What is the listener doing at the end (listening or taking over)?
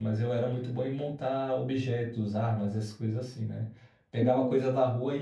listening